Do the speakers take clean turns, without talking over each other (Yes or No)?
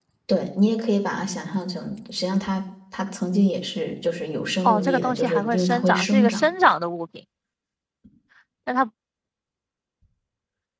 No